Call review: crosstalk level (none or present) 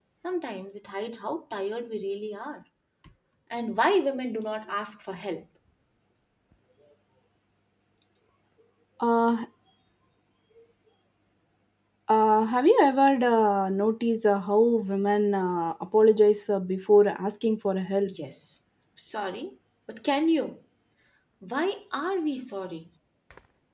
none